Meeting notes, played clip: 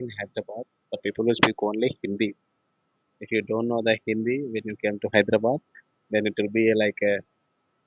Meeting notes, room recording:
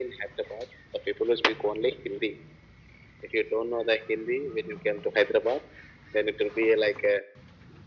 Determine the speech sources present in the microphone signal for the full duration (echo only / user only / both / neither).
echo only